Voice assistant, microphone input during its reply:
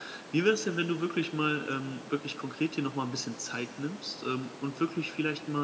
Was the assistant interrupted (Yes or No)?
Yes